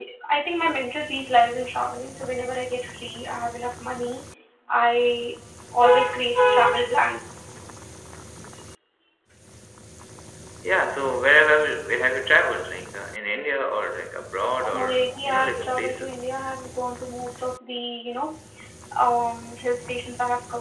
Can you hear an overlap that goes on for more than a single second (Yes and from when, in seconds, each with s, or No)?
Yes, from 14.6 s